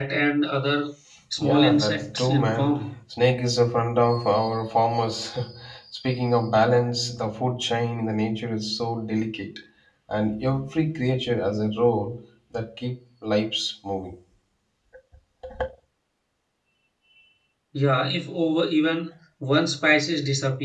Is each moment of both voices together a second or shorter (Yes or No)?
No